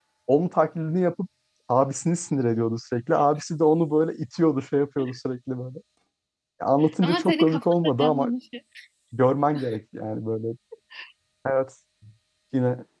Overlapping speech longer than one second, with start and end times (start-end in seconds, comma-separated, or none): 7.0-8.3